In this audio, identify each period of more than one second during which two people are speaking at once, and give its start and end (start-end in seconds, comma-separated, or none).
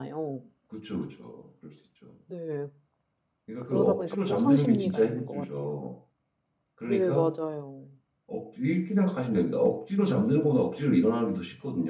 3.7-5.7